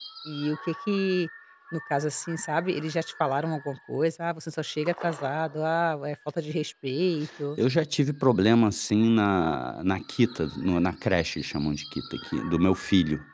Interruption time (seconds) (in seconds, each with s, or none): none